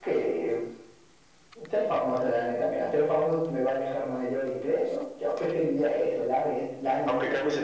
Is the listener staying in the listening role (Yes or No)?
No